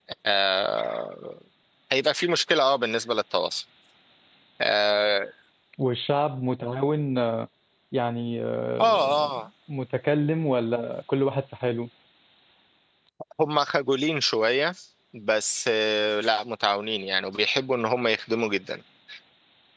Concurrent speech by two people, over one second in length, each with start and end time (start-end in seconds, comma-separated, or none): none